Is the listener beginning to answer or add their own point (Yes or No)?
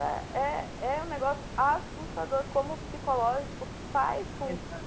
No